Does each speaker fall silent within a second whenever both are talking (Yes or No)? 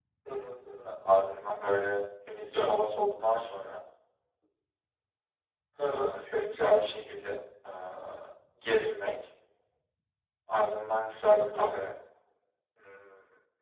Yes